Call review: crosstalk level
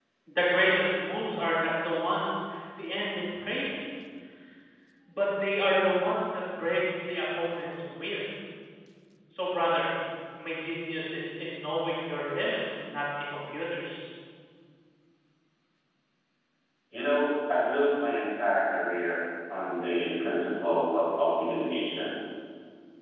none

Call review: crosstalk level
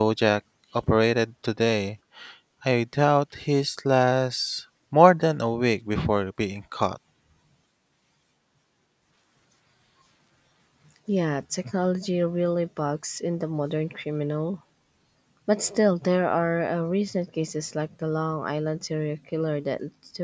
none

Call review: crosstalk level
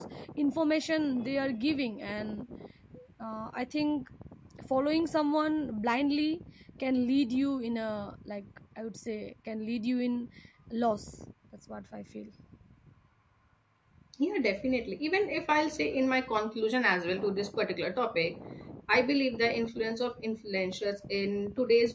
none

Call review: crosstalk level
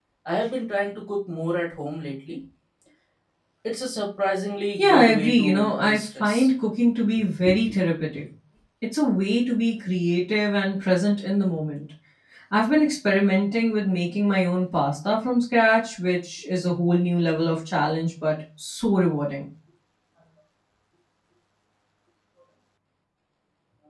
present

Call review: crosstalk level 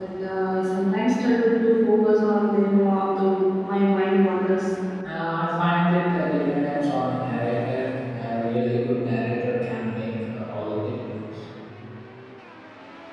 none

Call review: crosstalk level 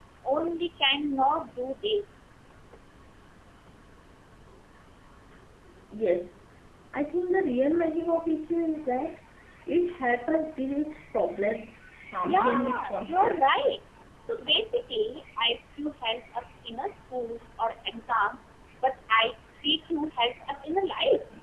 present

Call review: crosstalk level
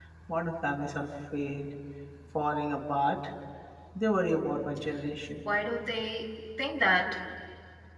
none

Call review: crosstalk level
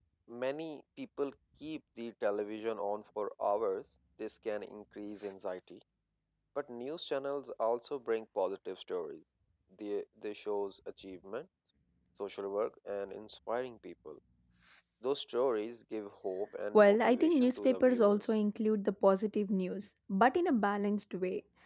present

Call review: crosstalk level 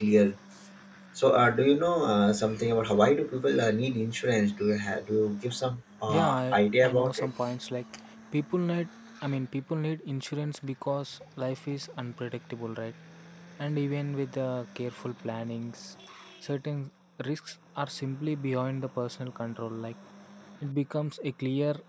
present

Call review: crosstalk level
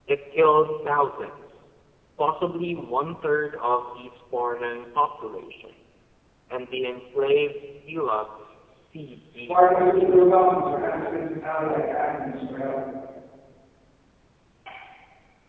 present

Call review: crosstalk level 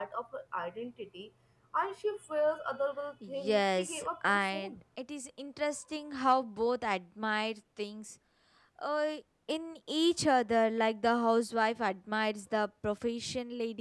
present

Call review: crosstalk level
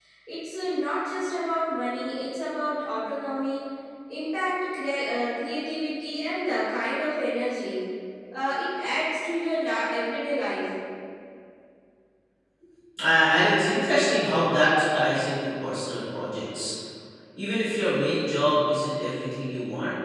none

